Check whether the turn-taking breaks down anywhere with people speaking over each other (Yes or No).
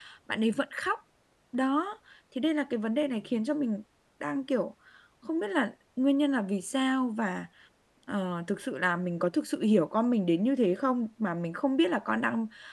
No